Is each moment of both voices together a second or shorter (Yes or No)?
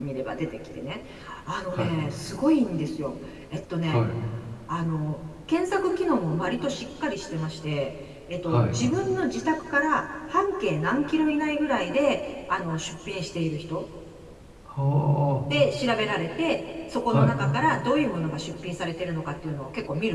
Yes